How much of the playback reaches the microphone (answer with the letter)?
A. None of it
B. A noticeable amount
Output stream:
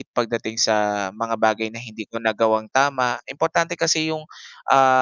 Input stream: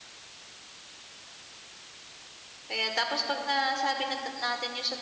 A